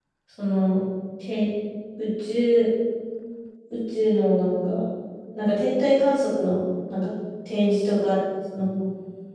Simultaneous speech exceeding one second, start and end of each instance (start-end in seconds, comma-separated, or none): none